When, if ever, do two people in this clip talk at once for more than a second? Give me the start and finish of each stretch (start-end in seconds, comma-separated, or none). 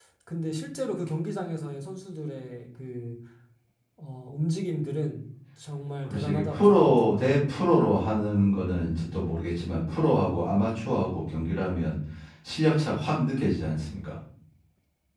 6.0-7.3